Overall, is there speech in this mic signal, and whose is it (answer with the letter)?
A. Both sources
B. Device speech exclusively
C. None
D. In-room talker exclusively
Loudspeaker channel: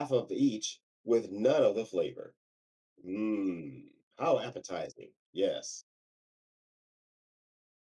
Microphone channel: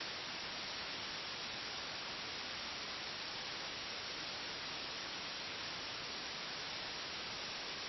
C